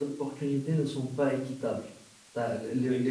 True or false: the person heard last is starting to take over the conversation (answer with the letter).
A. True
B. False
B